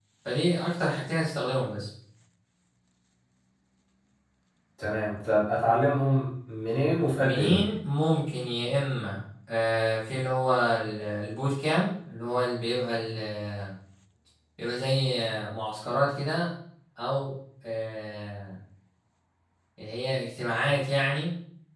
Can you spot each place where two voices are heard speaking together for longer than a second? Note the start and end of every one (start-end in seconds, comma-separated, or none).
none